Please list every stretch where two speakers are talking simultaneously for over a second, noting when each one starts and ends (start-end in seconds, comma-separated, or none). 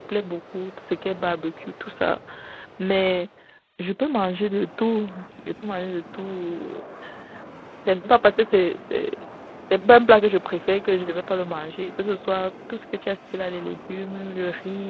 none